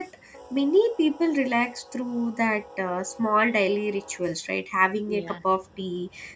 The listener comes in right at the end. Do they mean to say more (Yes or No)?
No